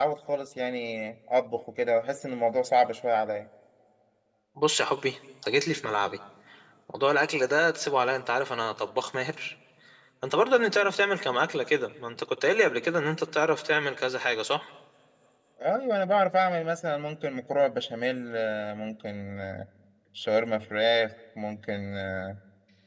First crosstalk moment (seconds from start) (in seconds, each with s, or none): none